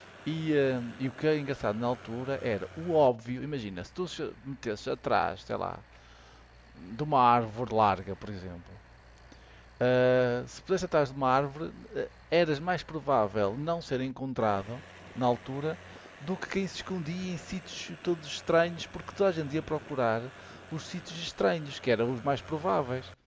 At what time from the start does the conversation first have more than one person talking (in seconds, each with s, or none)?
none